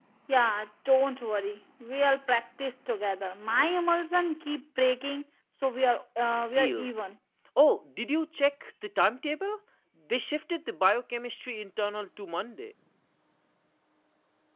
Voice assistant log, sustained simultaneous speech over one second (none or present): none